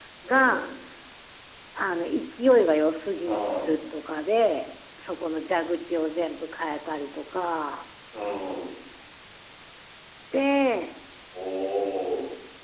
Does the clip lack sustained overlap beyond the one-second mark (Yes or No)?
Yes